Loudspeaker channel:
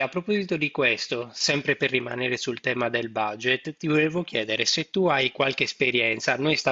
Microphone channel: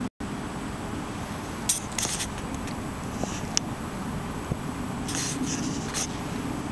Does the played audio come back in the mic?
No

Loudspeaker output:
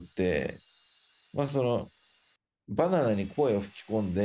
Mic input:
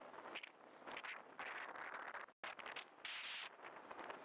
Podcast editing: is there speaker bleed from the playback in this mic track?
No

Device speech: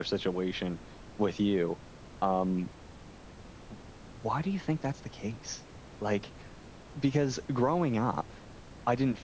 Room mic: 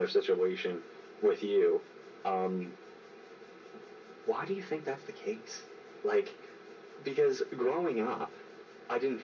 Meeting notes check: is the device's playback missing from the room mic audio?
No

